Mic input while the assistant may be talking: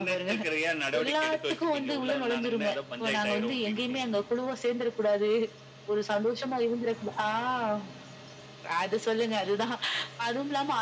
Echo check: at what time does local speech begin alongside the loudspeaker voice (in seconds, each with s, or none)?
none